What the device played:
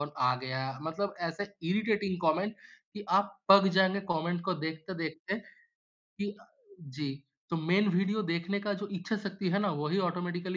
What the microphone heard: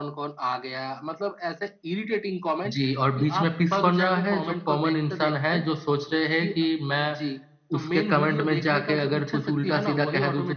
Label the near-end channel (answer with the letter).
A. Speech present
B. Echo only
A